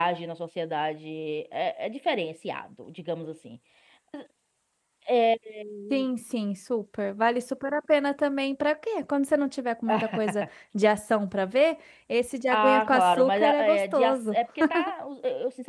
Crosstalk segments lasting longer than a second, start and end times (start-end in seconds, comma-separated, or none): 12.5-14.4